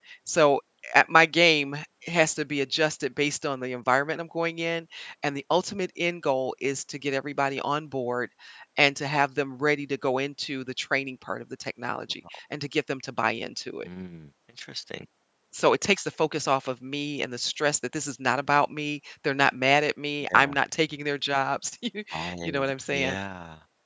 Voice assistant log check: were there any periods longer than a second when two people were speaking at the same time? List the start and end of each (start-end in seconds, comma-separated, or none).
none